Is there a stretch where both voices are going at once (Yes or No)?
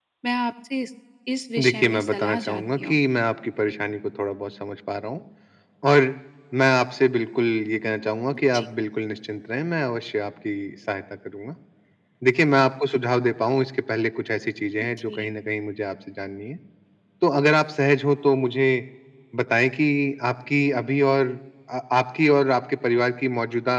Yes